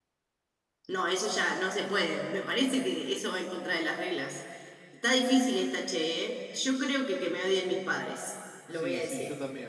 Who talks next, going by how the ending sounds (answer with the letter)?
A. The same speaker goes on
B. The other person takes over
B